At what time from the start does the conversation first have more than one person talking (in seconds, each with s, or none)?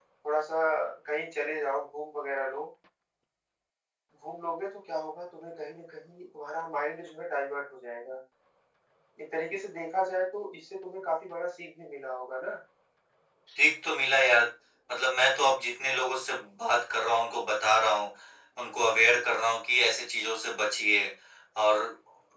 none